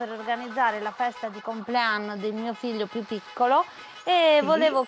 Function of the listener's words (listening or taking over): listening